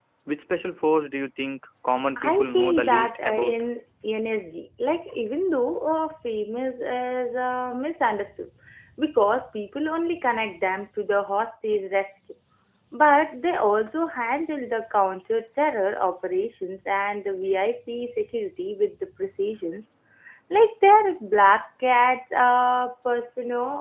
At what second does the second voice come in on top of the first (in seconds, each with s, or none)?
2.2 s